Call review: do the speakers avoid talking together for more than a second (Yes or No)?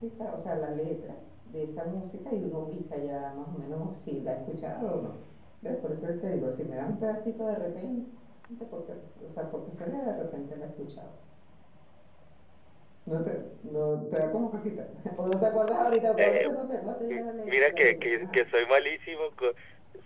No